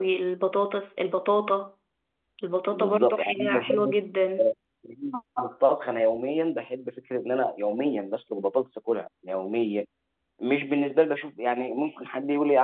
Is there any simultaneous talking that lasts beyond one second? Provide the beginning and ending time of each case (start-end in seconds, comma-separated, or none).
2.7-4.0